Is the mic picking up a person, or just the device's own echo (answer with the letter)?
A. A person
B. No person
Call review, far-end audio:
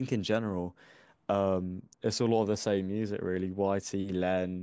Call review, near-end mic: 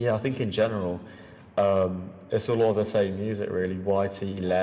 B